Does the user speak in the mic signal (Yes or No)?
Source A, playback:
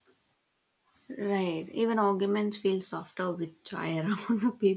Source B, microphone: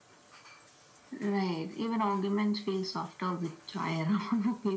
No